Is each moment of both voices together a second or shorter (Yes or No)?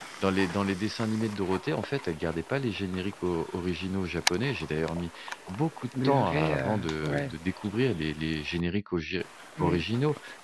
No